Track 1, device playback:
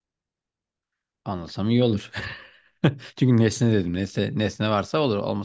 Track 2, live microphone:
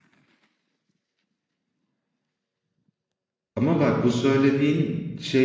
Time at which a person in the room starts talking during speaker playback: 3.6 s

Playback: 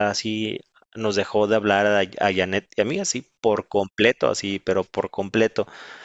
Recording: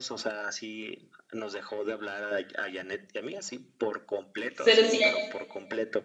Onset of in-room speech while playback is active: 4.5 s

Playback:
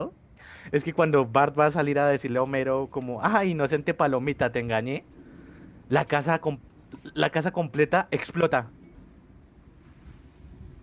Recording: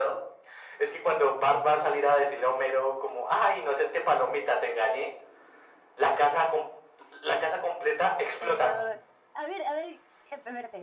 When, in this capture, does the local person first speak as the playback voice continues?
8.4 s

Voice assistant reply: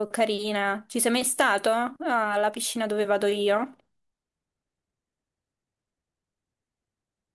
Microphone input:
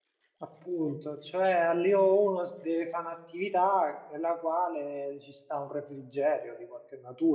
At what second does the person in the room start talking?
0.4 s

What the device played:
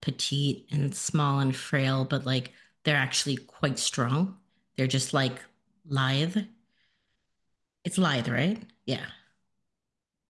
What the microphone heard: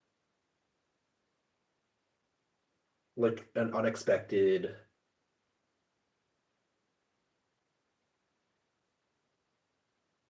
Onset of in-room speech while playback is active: 3.1 s

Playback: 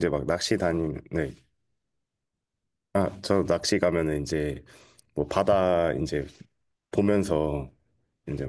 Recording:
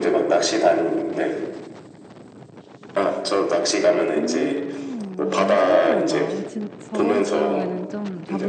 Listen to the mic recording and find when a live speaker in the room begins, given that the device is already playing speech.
4.2 s

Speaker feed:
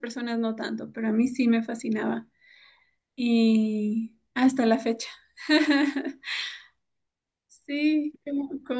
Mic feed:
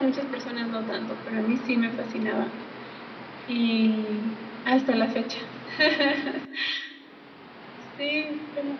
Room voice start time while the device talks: none

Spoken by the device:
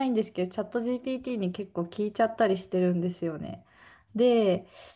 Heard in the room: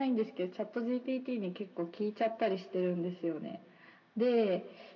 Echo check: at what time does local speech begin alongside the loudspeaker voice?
none

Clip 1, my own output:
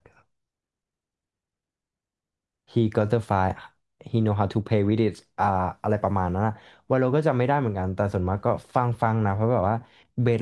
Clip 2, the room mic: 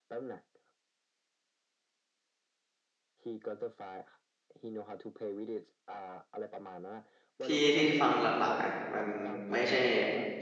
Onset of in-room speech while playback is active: 7.4 s

